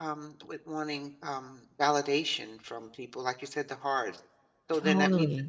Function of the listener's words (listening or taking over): listening